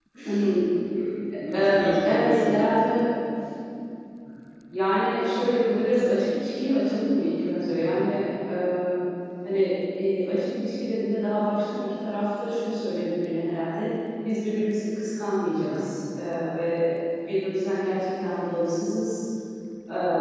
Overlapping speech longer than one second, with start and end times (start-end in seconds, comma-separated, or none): 1.4-2.7